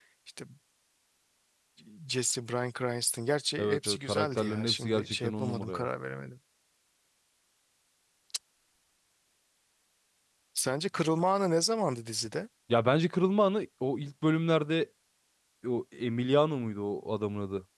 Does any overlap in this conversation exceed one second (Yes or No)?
Yes